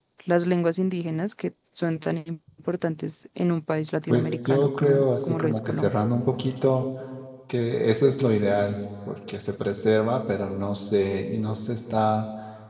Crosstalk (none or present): present